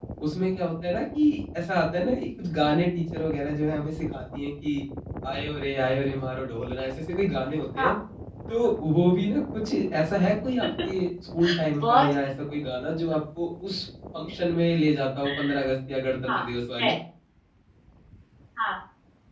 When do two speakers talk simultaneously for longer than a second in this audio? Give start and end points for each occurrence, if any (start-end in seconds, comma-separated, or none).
none